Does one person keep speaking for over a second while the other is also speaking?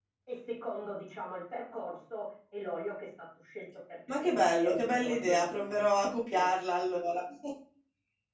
Yes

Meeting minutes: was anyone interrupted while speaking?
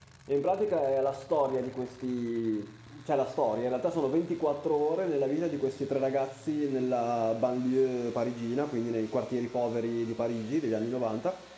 No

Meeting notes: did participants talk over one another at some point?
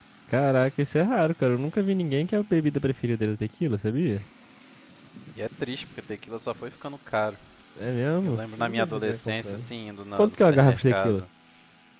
Yes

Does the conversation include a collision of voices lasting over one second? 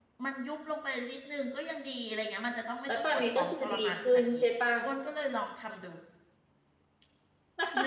Yes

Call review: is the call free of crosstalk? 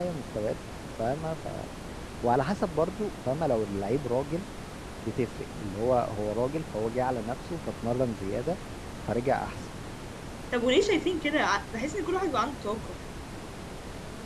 Yes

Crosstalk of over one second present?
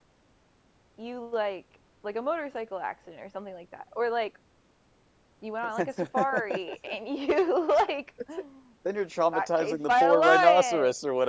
Yes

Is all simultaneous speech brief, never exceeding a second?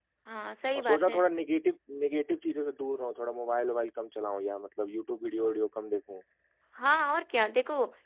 Yes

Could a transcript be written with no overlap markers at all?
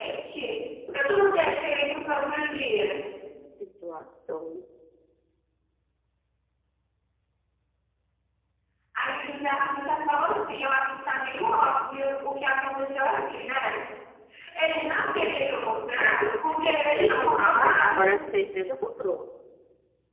No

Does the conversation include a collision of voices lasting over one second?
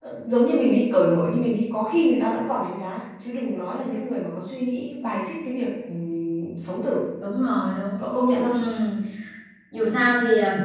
No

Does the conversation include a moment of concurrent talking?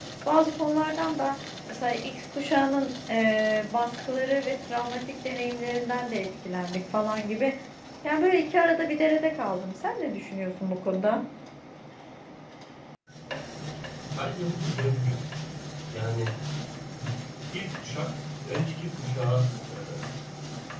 No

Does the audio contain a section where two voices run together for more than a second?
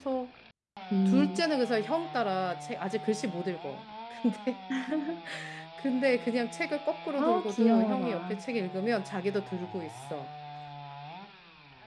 Yes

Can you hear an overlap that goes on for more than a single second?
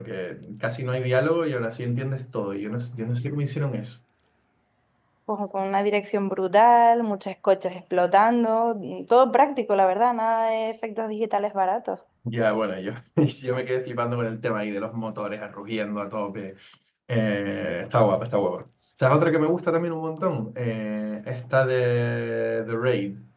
No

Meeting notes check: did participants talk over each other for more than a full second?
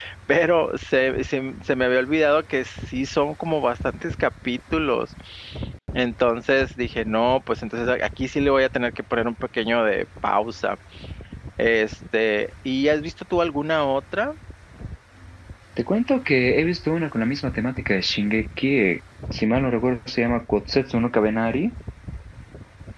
No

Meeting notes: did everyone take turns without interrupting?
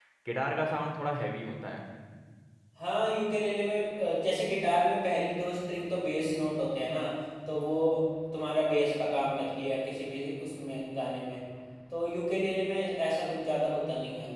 Yes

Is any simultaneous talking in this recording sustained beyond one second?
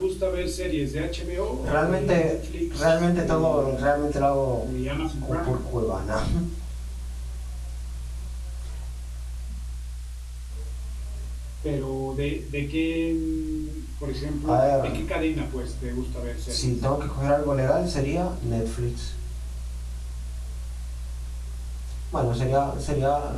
Yes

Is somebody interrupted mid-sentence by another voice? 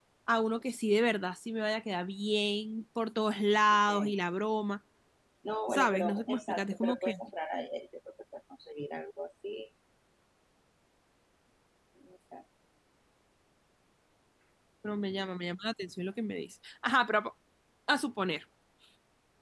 Yes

